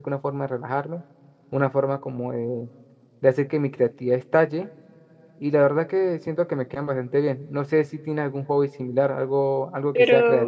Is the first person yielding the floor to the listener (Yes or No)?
Yes